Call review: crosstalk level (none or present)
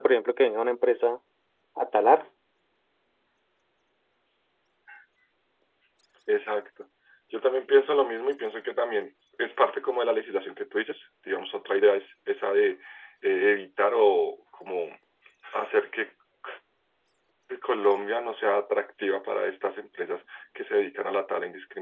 none